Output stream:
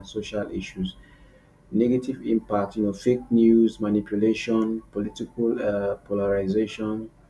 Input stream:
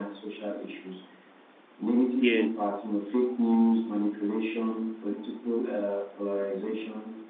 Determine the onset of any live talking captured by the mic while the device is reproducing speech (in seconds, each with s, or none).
2.2 s